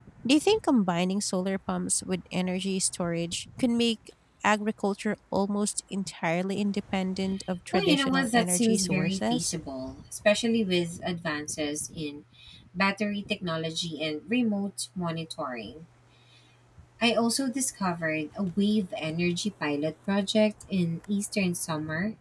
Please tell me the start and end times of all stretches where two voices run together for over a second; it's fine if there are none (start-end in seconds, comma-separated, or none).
7.7-9.5